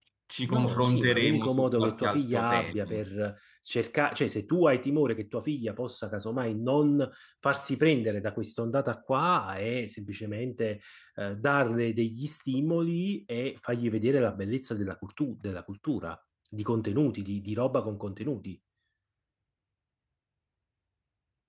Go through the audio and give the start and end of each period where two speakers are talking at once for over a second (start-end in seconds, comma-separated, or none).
0.5-3.0